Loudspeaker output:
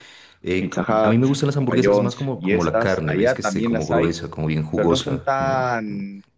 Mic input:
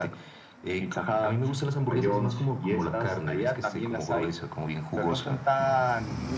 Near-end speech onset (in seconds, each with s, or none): none